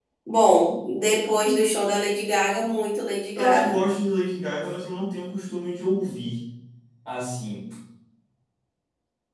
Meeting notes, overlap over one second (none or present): none